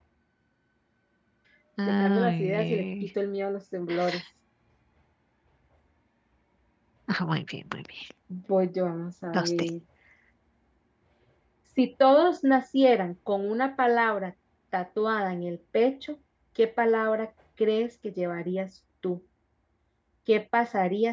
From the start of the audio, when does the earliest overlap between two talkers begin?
1.9 s

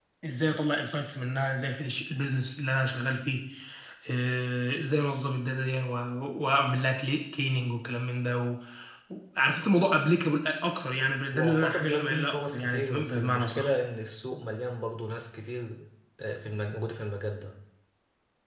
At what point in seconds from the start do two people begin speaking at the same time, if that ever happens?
11.3 s

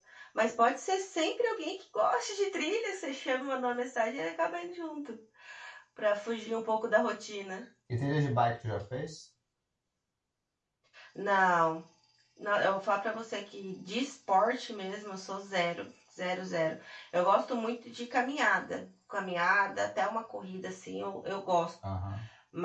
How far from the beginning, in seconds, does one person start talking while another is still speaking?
none

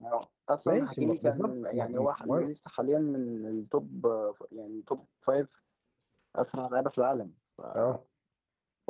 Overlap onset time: 0.7 s

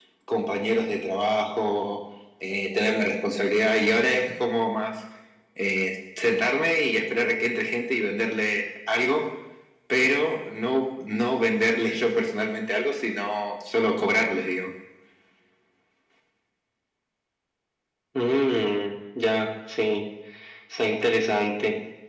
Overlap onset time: none

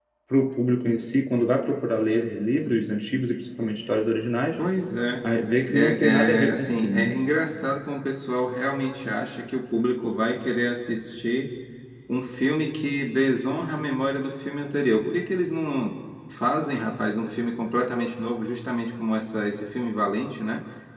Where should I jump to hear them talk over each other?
5.7 s

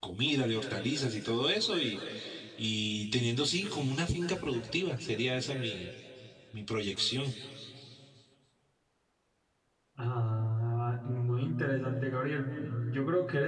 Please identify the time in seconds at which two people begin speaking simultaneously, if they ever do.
none

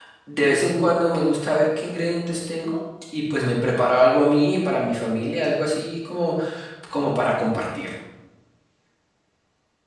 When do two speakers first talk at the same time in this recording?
none

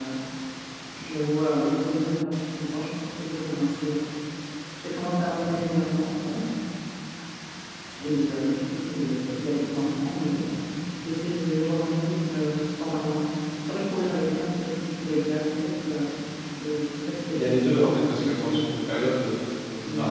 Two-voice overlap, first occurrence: 17.3 s

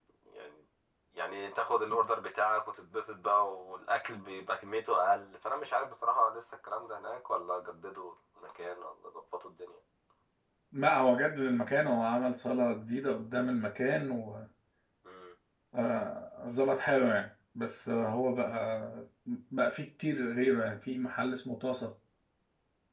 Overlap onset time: none

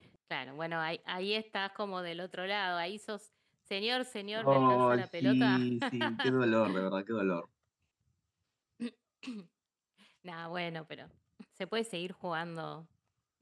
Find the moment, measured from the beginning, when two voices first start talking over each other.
4.4 s

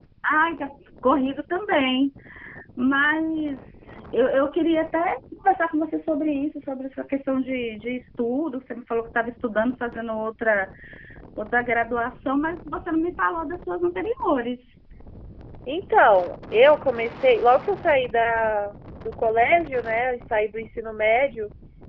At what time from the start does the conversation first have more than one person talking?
none

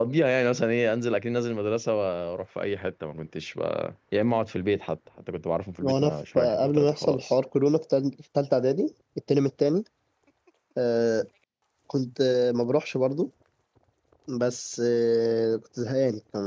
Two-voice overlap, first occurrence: 5.8 s

